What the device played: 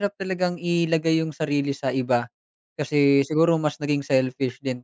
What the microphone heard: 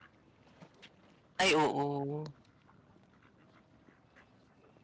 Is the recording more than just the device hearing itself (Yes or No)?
Yes